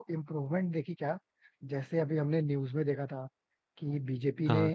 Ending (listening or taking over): listening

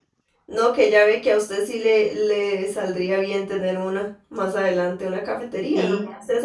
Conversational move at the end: listening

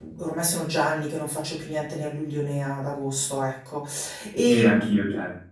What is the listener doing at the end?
taking over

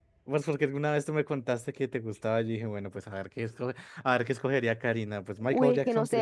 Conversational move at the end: taking over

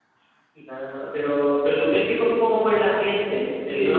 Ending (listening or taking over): taking over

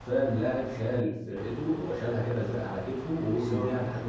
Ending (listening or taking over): listening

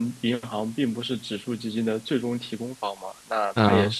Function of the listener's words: listening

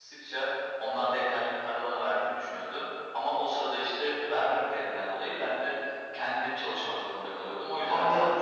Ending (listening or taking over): taking over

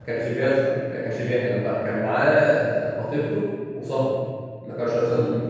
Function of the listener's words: listening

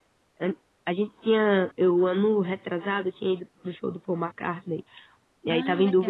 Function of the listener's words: listening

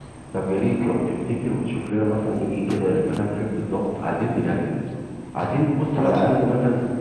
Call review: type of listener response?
listening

